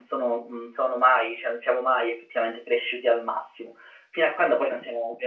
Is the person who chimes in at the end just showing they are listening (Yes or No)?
Yes